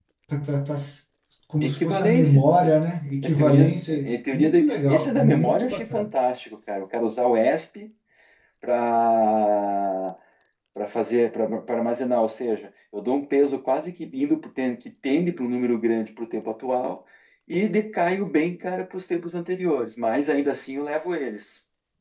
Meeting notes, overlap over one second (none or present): present